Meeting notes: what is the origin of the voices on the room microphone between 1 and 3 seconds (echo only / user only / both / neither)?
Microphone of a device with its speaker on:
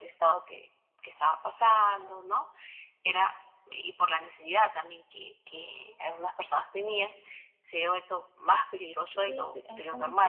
echo only